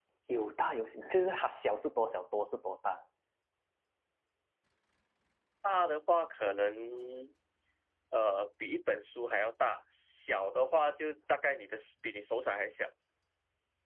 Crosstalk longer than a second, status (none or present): none